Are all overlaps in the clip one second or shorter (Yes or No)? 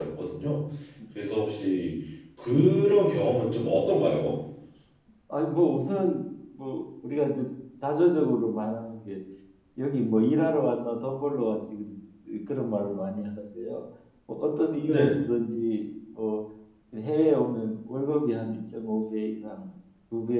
Yes